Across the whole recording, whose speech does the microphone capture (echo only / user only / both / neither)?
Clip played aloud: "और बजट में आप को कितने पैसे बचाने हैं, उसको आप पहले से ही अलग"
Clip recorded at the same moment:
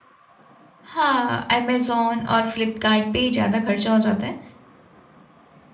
user only